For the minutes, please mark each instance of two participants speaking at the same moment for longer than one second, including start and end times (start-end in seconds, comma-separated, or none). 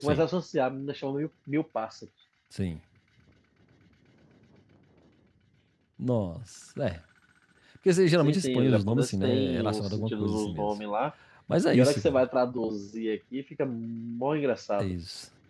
8.2-10.7